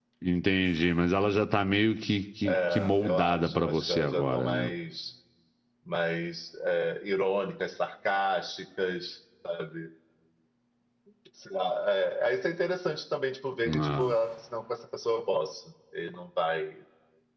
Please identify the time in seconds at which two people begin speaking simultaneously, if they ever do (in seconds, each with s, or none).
2.5 s